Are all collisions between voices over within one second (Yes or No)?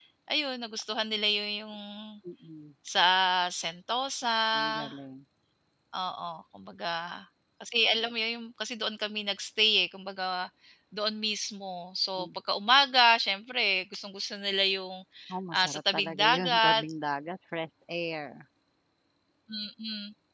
No